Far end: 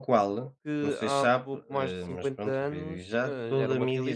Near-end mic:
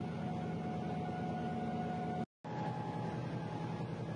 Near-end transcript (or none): none